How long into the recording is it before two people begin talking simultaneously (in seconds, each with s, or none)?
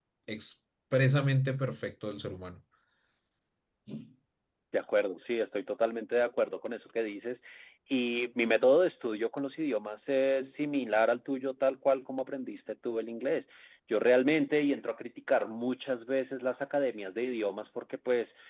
none